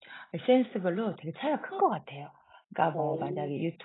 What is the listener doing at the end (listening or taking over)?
listening